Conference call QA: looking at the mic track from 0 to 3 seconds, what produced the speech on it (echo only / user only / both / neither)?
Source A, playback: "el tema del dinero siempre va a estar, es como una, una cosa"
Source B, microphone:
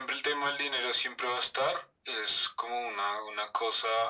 echo only